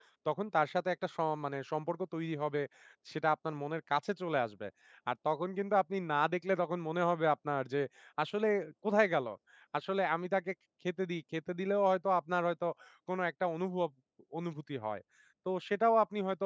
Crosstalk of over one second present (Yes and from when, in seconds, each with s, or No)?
No